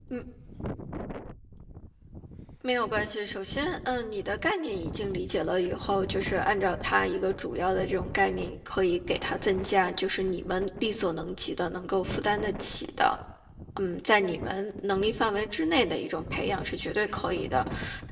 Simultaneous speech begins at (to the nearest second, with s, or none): none